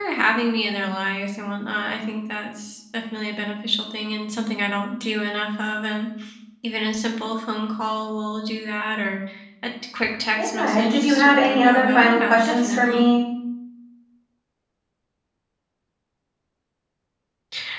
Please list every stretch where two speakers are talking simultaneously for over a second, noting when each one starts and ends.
10.4-13.1

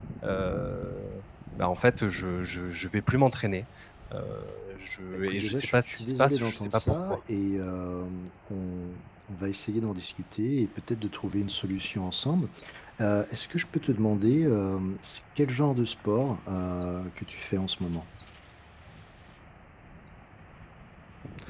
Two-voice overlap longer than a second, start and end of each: 5.3-7.2

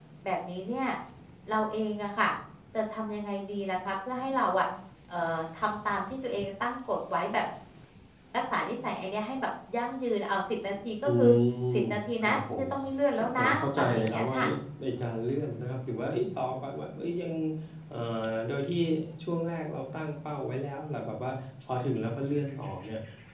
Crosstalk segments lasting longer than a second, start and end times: 13.2-14.4

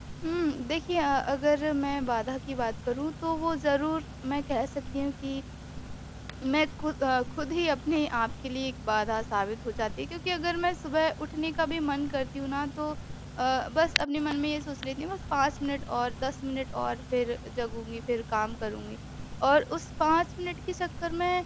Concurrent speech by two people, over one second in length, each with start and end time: none

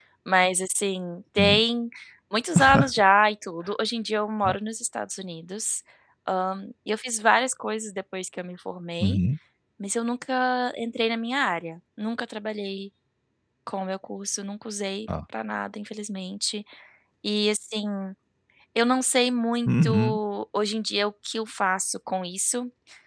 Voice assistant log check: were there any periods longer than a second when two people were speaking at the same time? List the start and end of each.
none

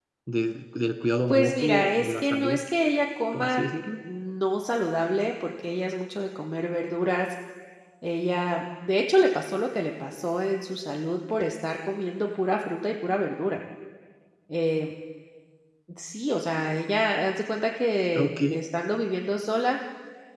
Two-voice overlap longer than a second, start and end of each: 1.3-2.6

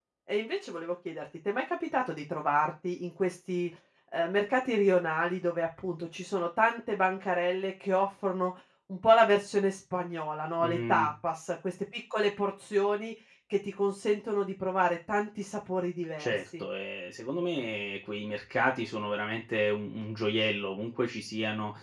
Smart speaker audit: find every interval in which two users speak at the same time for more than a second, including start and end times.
none

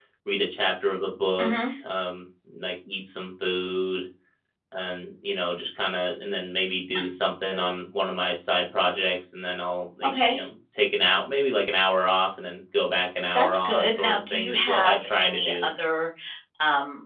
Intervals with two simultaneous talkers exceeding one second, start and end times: 13.3-15.7

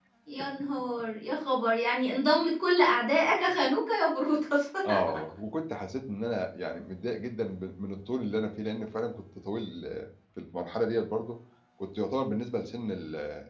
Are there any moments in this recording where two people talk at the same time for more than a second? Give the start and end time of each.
none

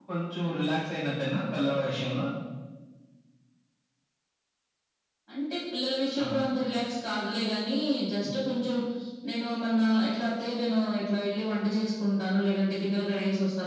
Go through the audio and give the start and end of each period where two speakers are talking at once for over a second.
none

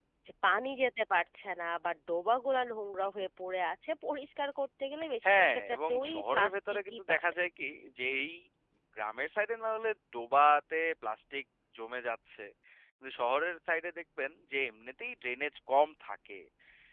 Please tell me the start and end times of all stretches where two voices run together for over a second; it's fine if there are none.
5.2-7.2

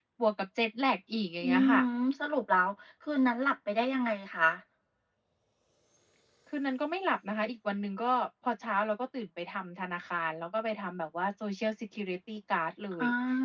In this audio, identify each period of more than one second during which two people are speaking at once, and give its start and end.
none

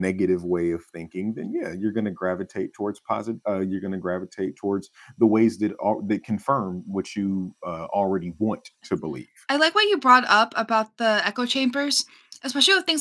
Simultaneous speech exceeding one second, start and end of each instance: none

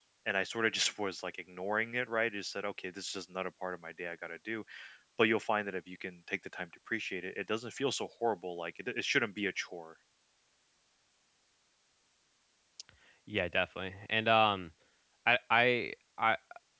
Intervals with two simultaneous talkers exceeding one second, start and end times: none

